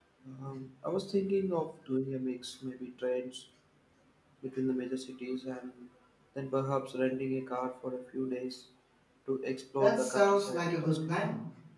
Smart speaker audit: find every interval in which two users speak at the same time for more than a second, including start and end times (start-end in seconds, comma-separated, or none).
9.8-11.2